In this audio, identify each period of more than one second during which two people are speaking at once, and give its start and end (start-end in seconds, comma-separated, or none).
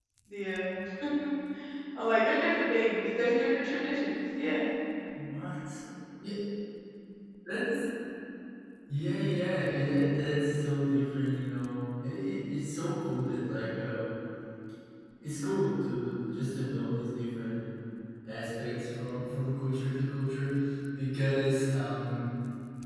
none